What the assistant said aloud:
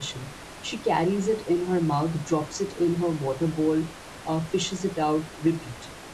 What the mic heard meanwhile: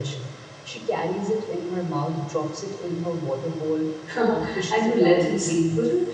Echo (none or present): present